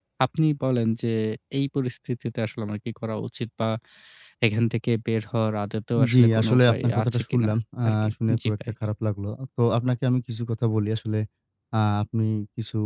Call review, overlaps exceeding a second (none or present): present